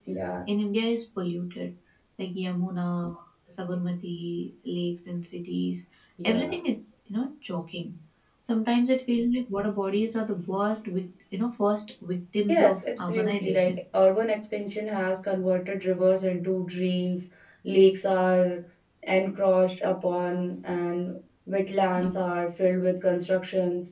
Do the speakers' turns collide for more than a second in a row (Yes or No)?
Yes